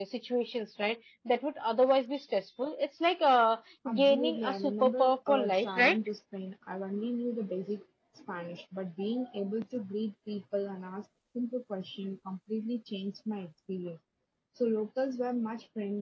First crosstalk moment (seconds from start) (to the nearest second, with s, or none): 4 s